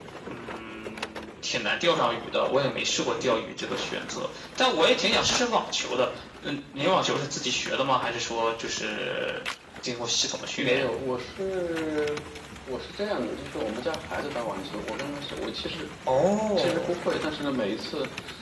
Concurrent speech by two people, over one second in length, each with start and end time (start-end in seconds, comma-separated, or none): none